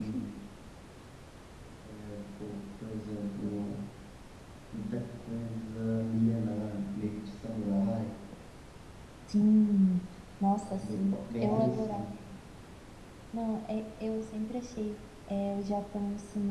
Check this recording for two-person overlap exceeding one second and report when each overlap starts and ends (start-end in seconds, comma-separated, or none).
10.6-12.1